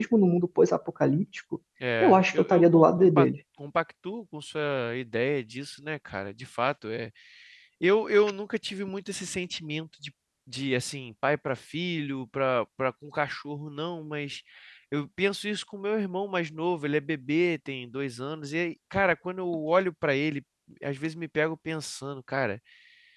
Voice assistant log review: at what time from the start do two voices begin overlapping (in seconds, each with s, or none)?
2.0 s